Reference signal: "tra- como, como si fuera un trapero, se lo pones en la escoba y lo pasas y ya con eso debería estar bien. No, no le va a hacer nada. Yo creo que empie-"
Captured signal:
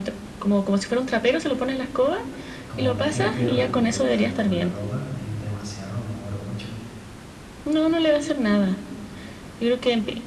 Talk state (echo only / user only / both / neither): both